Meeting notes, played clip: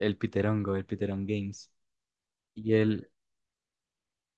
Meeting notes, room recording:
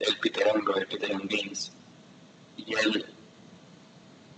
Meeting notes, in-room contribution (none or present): none